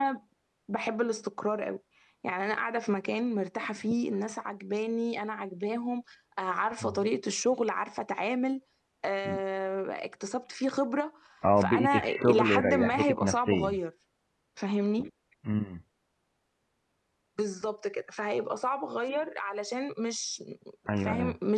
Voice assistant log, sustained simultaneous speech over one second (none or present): present